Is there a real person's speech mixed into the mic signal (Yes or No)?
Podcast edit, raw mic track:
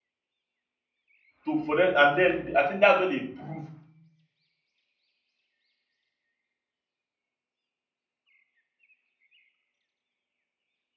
Yes